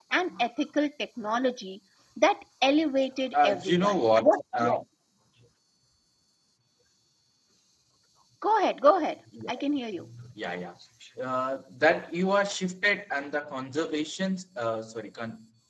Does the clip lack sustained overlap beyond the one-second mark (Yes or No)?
No